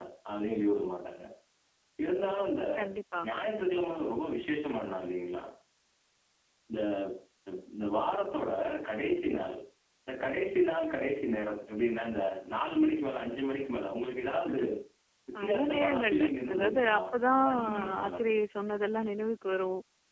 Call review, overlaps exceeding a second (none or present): present